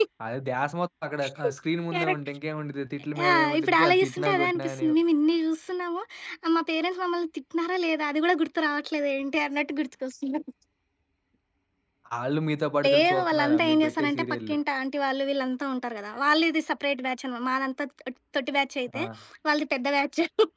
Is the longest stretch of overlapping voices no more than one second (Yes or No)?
No